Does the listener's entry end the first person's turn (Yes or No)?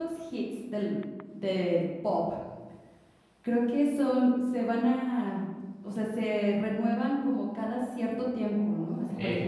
No